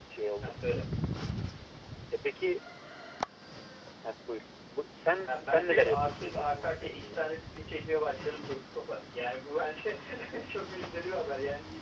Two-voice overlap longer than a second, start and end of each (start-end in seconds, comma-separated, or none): 5.3-7.2